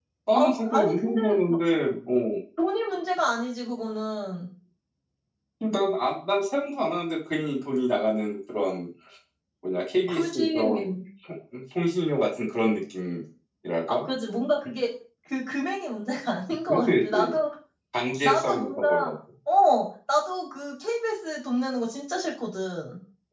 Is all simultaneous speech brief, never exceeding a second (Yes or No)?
No